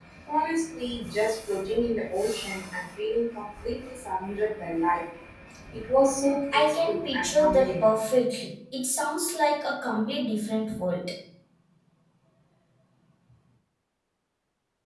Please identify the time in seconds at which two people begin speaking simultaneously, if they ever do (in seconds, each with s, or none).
6.5 s